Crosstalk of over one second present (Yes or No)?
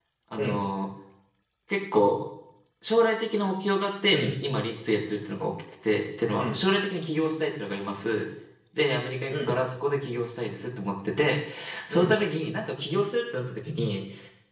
No